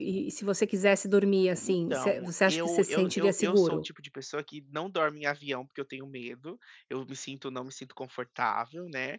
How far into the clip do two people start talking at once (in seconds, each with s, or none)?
1.6 s